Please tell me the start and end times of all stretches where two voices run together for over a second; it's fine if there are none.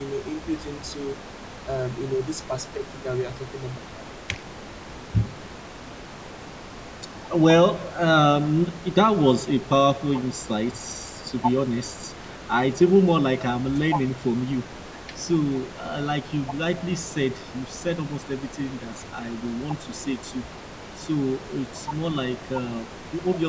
none

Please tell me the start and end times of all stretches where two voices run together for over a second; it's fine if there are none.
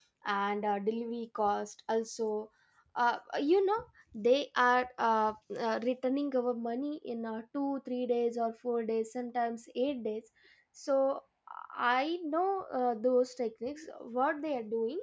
none

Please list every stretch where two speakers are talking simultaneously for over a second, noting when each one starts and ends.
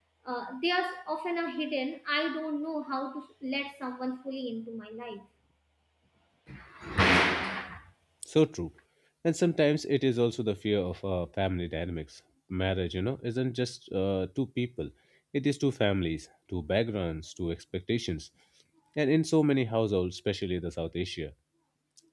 none

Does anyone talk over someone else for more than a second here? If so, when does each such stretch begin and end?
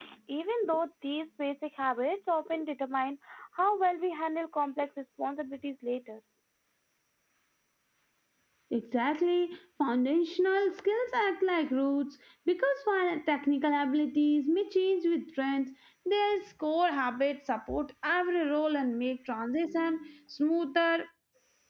none

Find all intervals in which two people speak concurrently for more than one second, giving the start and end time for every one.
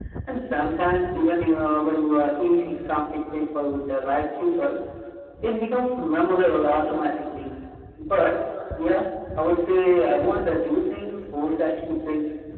none

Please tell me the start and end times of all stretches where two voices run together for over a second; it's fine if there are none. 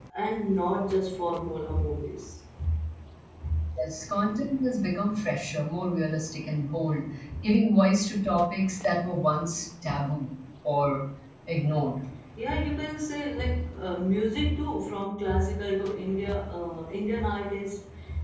none

